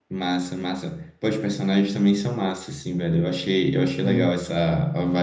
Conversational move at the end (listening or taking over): listening